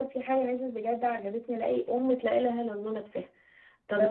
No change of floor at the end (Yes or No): No